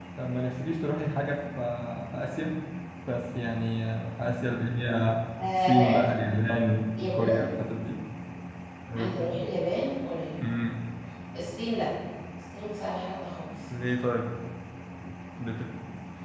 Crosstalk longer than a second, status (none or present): none